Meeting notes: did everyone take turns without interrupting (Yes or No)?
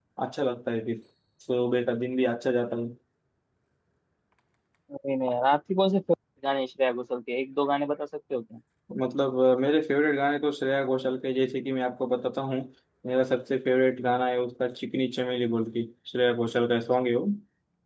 Yes